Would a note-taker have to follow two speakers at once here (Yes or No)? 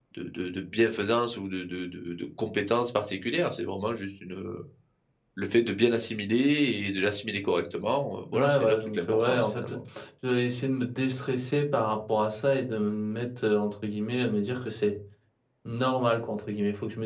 Yes